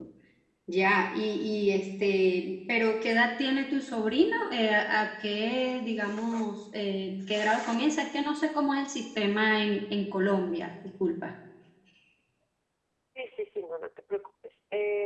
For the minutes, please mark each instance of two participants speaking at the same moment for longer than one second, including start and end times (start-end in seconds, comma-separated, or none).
none